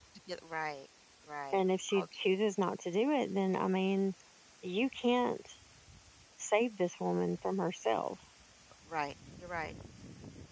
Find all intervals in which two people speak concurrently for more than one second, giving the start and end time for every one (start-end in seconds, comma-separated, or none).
none